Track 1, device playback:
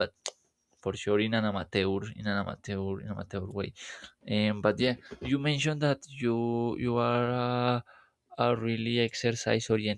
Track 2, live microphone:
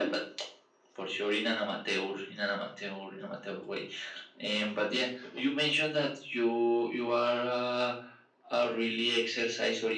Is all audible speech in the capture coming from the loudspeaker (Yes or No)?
Yes